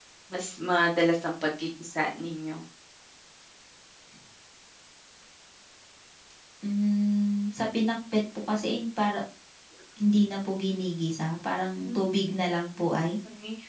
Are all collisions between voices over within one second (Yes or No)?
Yes